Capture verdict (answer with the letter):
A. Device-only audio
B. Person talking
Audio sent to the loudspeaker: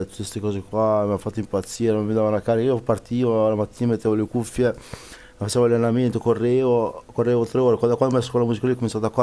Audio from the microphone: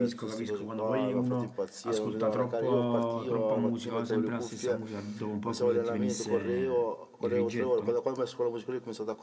B